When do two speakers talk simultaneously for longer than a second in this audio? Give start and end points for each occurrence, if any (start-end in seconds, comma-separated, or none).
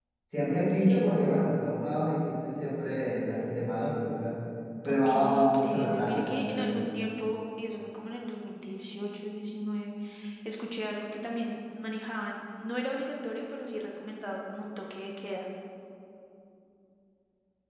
4.9-6.9